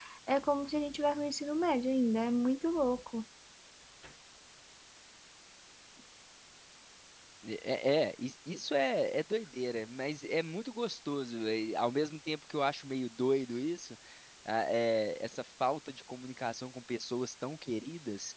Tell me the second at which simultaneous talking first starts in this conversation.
none

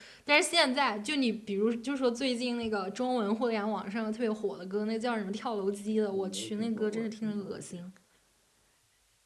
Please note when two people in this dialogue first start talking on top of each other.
6.1 s

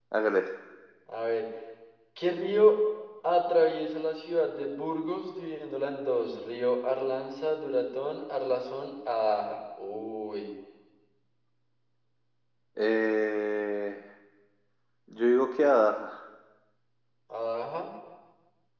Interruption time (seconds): none

